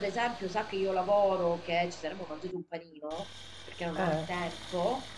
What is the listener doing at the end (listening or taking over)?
listening